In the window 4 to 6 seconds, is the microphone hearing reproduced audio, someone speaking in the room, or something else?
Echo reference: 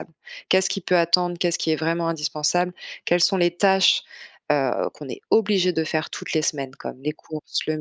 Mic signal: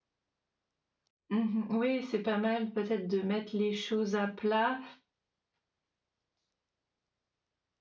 user only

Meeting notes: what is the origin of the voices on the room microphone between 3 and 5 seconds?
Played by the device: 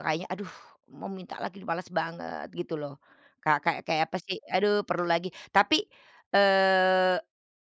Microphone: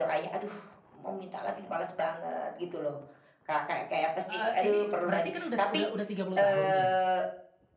both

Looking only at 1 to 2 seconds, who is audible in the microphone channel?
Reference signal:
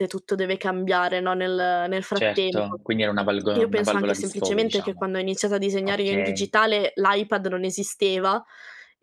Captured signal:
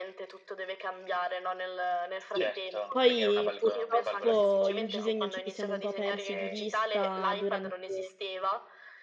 echo only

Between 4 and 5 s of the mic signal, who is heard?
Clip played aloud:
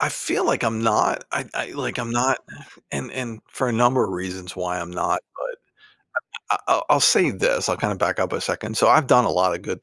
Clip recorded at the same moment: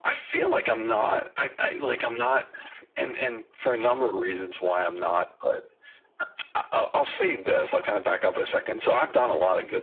echo only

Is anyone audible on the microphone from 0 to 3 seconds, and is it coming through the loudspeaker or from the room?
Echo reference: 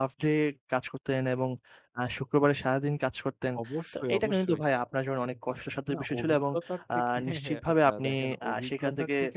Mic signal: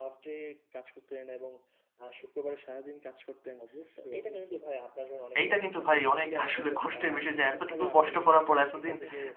echo only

